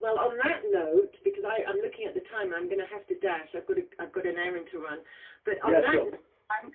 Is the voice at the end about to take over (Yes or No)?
No